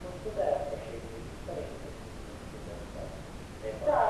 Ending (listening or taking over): taking over